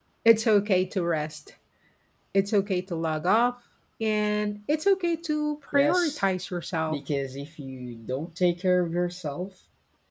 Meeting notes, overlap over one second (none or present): none